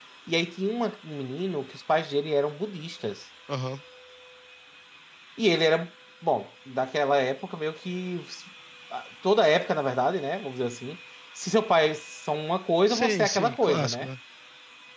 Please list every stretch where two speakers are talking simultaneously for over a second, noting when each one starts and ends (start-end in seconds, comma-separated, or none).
12.9-14.1